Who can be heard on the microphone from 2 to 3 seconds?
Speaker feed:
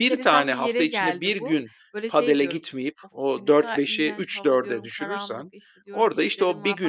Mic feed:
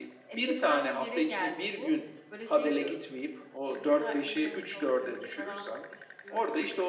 echo only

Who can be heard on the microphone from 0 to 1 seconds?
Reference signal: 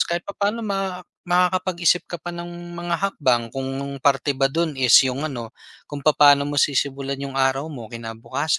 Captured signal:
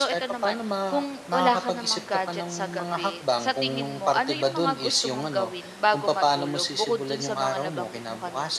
both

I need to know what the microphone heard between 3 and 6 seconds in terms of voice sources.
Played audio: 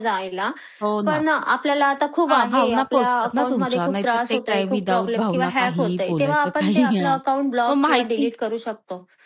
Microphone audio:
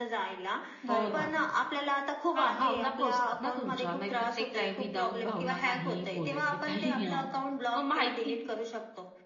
echo only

